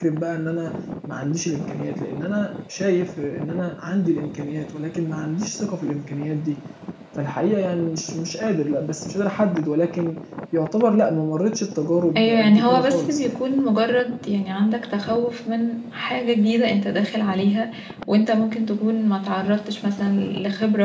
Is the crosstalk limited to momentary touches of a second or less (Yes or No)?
No